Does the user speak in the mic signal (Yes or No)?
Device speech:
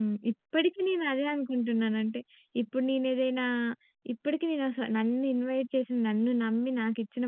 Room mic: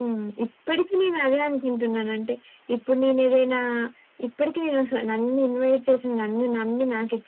No